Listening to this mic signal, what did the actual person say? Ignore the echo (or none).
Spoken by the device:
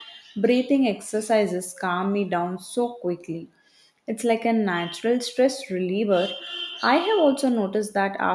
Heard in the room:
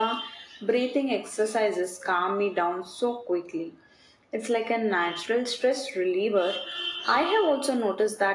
none